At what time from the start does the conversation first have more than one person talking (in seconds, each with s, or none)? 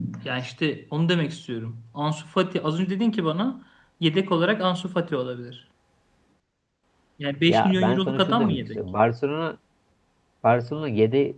7.5 s